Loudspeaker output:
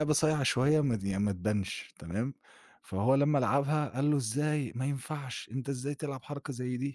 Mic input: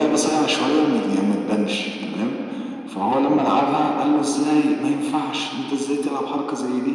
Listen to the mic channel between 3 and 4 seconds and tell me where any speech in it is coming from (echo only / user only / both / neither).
echo only